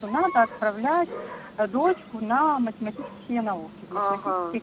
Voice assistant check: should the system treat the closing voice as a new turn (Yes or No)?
Yes